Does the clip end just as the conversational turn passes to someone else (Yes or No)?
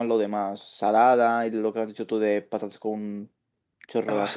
No